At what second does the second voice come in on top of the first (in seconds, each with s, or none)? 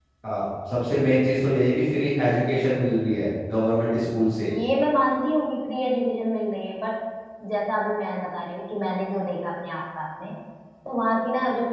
none